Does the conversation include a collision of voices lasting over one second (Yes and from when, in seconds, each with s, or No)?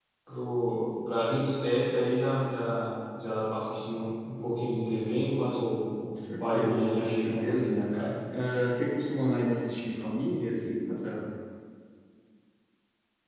Yes, from 6.4 s